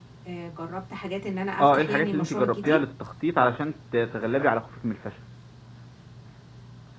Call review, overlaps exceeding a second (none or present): present